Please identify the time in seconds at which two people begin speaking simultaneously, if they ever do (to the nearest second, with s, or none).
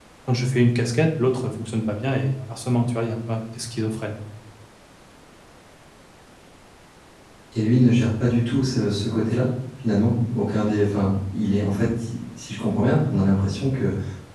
none